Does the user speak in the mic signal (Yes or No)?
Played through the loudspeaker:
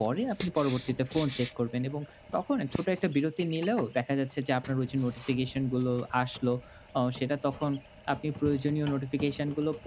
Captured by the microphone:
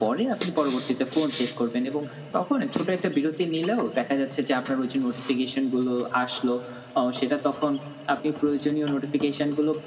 No